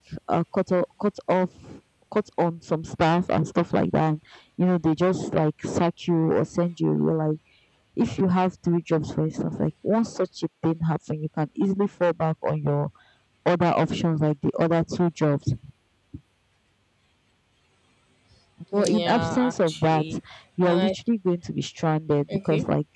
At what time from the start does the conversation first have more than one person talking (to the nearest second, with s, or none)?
19 s